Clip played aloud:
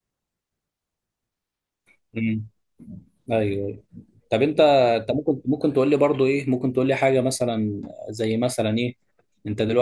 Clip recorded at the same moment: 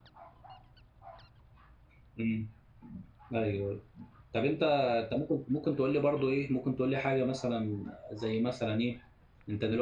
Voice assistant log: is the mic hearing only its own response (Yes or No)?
Yes